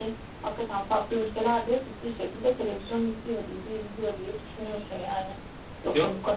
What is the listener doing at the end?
listening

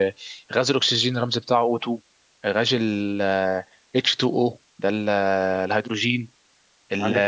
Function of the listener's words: taking over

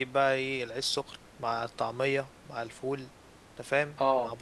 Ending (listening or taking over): listening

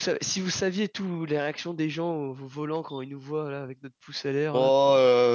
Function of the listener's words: taking over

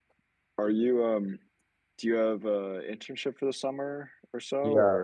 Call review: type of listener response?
taking over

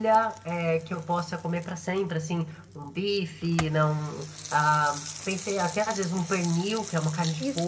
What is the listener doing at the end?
taking over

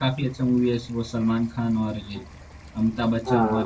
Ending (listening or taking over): taking over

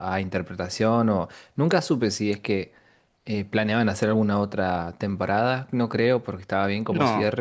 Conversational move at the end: listening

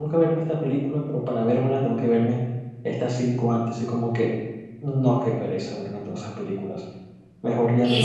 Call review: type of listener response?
listening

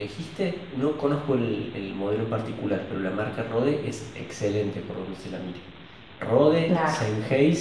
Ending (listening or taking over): listening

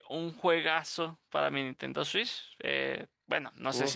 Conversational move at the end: listening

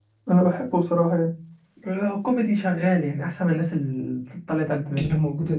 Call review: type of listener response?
taking over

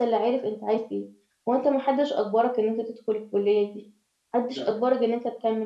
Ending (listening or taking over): listening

